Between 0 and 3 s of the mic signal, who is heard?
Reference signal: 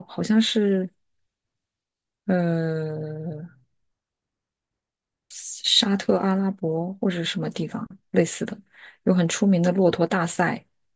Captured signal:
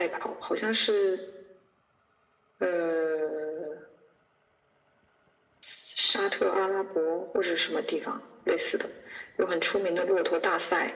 echo only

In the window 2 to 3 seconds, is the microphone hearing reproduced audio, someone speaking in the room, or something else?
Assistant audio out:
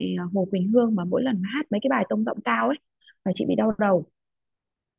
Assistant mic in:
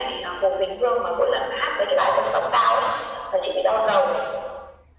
echo only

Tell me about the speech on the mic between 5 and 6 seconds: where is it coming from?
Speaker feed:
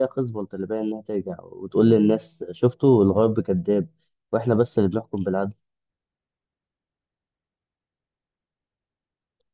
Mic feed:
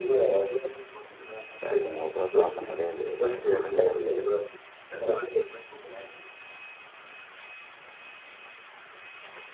echo only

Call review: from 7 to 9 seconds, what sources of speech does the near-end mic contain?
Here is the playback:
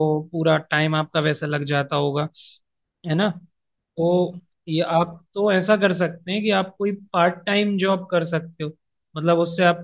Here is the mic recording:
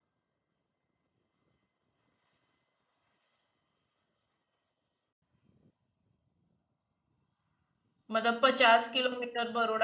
user only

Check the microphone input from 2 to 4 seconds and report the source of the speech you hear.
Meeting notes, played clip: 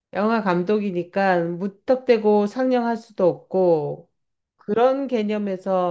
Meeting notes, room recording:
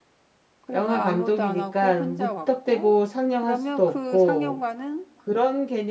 both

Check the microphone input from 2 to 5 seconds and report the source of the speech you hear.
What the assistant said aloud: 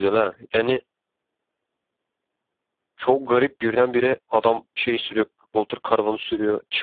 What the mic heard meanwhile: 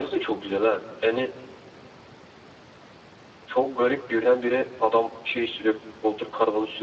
echo only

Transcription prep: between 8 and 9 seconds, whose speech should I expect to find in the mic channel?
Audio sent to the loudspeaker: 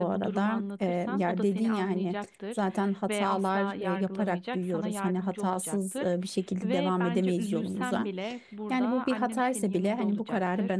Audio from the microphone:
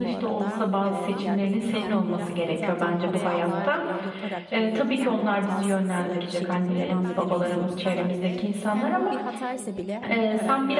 both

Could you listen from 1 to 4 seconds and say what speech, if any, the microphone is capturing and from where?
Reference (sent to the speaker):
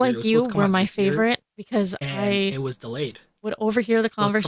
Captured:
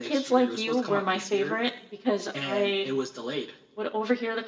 echo only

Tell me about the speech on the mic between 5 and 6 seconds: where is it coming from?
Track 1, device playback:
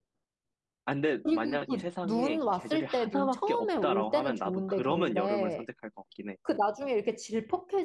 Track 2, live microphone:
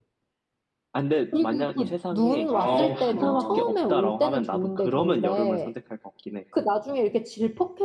echo only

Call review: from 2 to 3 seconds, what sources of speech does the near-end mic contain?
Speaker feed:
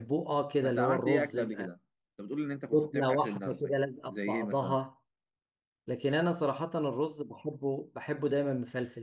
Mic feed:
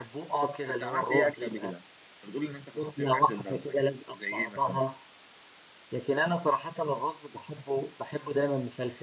echo only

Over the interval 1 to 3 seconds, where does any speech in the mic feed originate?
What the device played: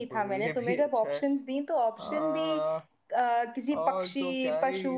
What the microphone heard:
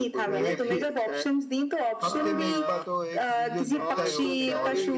both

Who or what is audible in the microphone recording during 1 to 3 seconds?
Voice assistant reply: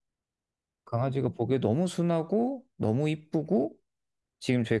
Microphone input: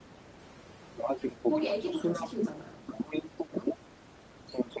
both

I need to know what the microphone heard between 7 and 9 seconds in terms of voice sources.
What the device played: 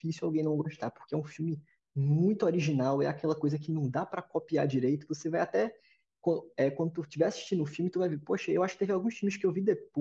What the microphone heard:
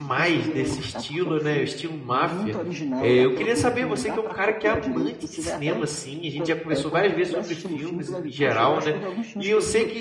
both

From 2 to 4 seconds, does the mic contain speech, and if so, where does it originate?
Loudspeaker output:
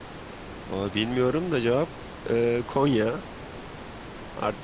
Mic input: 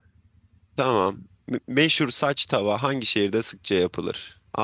user only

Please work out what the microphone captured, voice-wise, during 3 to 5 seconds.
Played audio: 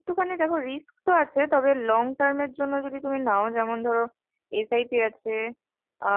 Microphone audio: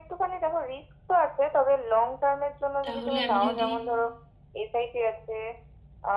both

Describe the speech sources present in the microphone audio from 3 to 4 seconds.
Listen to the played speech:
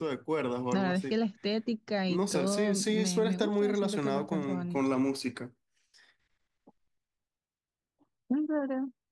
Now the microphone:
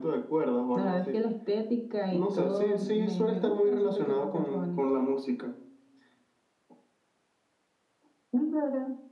echo only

